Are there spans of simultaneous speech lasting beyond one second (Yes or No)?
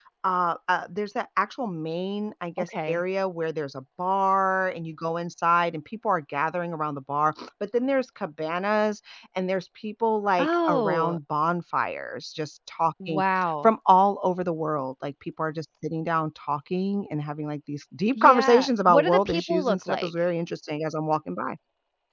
Yes